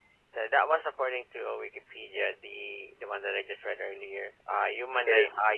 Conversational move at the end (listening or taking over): listening